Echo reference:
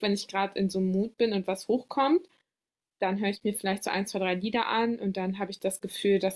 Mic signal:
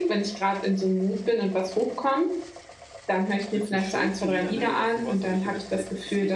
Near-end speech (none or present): present